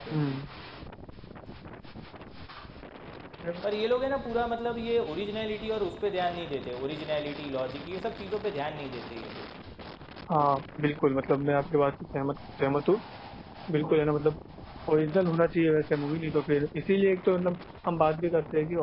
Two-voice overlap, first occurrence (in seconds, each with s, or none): none